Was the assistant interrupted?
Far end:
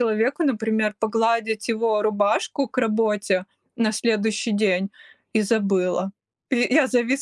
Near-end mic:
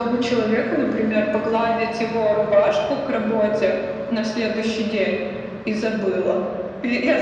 No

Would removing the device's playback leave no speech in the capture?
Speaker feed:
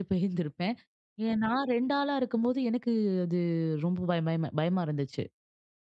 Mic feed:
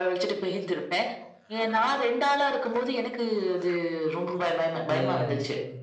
No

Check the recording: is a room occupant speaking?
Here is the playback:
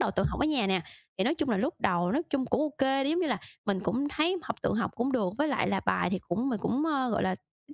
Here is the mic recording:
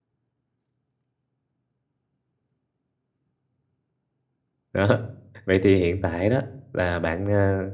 Yes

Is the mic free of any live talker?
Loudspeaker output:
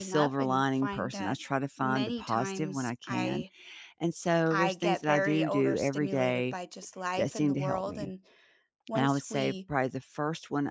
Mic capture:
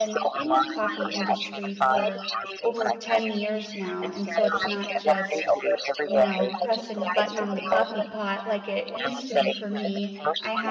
No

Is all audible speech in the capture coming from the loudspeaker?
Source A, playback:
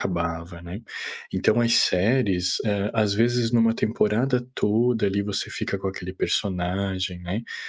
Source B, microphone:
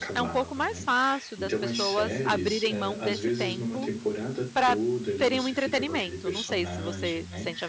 No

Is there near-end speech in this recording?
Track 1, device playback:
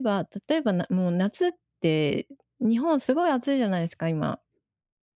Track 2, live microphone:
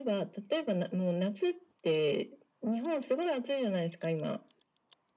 No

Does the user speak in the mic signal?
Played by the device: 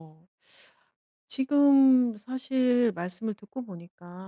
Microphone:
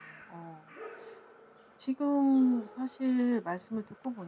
No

